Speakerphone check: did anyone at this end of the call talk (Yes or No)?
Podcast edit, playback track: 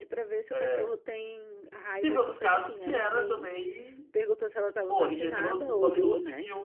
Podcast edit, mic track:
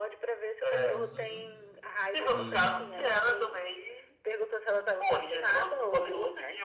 Yes